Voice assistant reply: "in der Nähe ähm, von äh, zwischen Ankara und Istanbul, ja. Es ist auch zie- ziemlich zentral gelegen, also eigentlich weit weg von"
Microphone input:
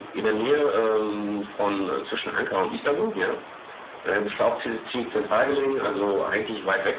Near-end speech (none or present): none